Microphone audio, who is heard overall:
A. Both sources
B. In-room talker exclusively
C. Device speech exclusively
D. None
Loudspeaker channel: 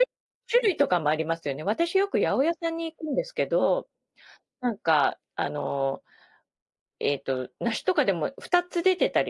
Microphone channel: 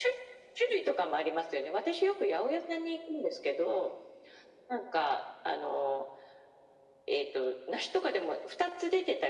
C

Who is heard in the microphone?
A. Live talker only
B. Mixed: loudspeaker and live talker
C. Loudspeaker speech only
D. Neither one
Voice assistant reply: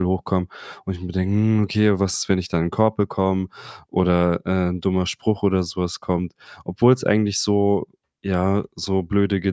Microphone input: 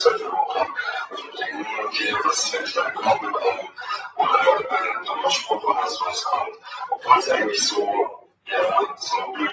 C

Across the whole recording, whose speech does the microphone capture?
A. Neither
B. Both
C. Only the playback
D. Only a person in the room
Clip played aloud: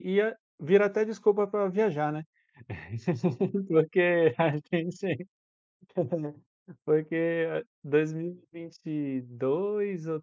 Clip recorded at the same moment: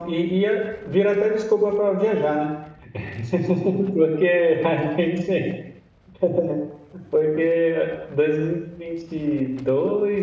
C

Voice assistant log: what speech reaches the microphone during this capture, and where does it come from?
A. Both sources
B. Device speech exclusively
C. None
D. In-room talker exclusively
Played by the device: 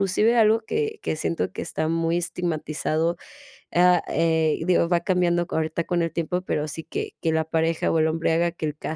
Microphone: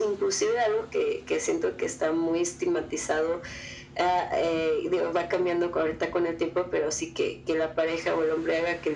B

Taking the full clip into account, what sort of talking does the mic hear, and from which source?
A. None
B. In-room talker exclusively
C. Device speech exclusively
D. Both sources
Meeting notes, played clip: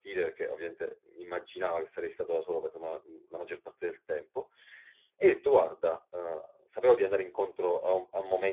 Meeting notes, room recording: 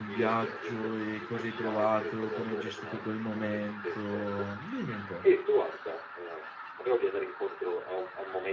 D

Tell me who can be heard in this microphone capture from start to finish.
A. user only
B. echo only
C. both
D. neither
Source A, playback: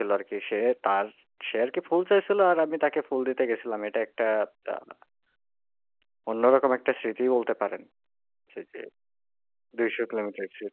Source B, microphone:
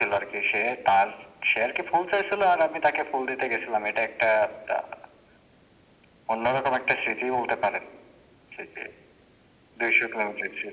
B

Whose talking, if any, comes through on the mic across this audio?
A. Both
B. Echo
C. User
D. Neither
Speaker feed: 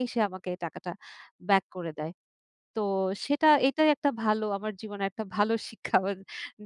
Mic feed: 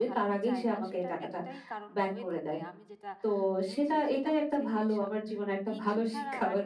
A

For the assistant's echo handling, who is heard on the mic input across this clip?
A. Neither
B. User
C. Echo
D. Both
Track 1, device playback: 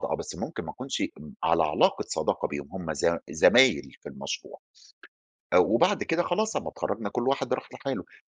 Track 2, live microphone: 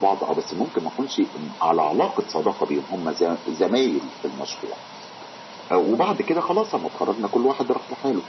C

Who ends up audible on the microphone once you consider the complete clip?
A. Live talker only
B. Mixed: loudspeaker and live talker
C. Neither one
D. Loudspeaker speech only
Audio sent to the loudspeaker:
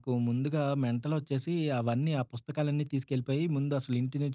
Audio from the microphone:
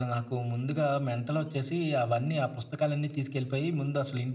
D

